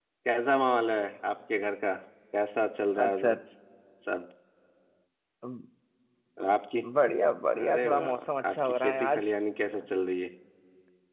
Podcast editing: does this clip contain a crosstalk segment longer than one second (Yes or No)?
Yes